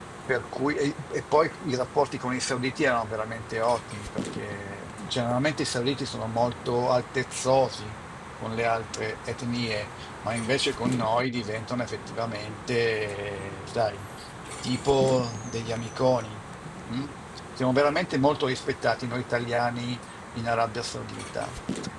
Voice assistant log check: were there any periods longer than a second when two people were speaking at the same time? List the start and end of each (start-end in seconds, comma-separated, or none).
none